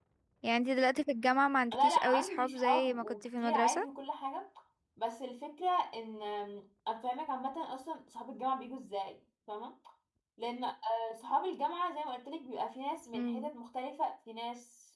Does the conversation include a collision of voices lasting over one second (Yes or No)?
Yes